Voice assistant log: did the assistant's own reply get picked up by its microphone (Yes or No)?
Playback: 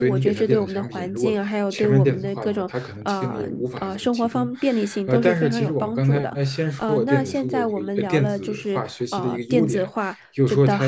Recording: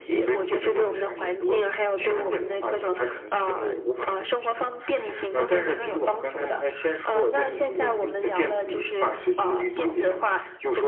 Yes